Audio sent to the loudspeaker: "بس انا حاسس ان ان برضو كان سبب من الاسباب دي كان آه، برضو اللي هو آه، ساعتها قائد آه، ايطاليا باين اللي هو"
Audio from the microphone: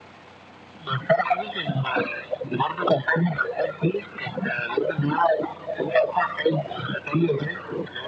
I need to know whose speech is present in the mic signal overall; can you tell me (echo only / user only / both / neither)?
echo only